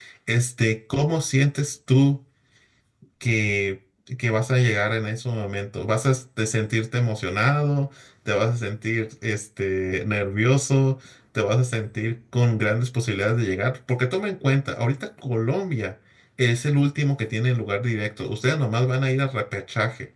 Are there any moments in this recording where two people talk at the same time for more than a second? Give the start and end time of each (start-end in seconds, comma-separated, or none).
none